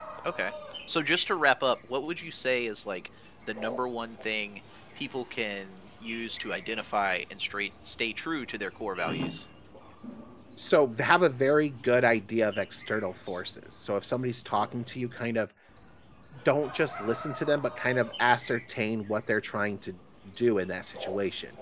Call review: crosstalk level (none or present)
none